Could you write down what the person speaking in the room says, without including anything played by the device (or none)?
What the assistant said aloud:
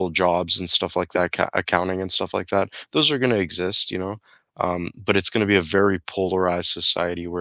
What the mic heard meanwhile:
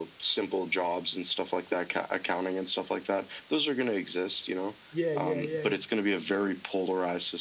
Yeah, yeah, yeah, yeah. Yeah,